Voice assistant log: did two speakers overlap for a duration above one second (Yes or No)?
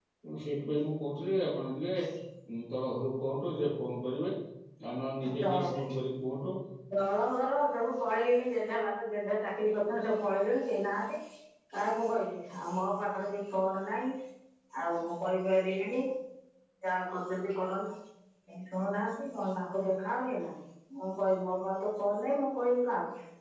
No